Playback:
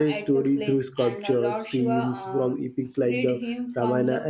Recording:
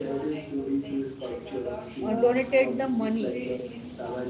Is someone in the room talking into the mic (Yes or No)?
Yes